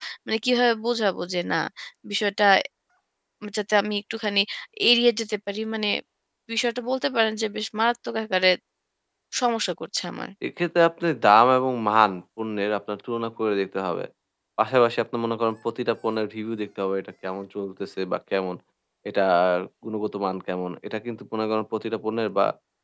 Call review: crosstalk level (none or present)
none